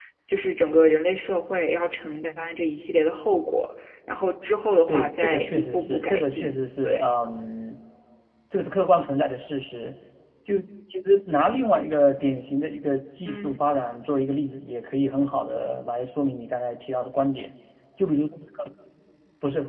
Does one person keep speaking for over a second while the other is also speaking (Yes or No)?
Yes